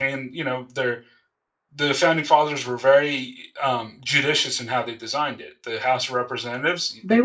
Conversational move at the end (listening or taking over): listening